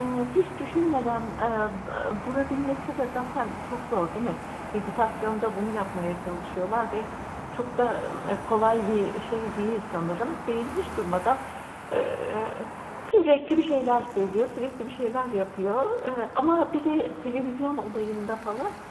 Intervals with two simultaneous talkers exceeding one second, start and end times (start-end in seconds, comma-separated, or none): none